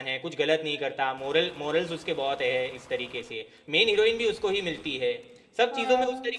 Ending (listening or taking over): listening